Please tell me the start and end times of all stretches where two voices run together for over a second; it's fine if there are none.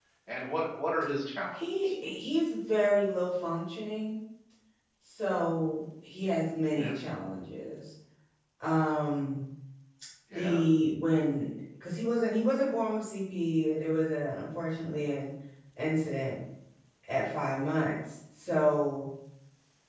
none

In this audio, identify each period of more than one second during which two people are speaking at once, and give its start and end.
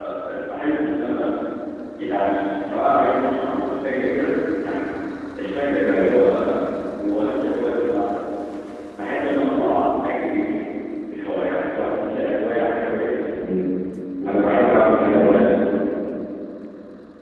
14.3-15.5

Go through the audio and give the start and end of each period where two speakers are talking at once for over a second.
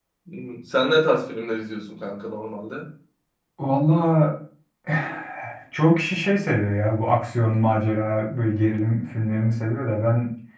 none

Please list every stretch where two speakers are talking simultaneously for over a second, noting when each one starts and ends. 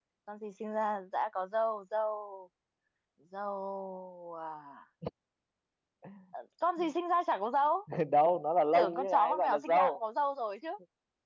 8.7-10.0

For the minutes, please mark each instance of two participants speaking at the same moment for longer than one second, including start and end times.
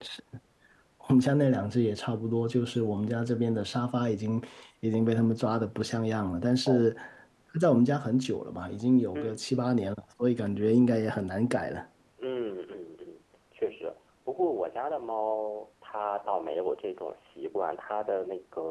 none

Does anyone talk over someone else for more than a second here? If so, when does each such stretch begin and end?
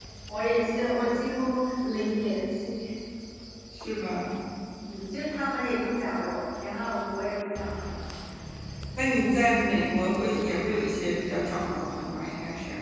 none

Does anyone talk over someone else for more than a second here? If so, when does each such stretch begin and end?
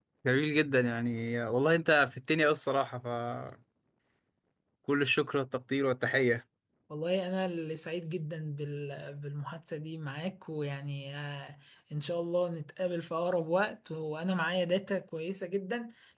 none

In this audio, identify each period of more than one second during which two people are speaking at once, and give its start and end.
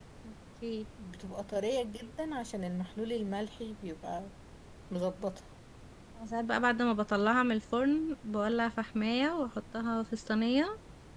none

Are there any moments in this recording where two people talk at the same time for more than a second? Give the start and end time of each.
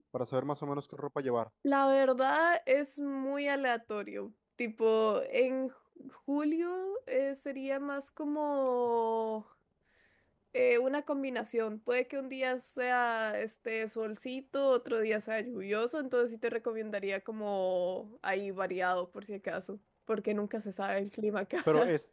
none

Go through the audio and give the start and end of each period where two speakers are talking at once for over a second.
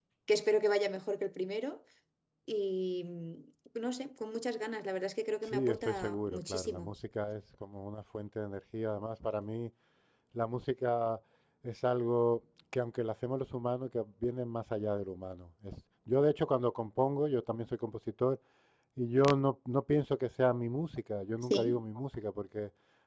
5.5-6.9

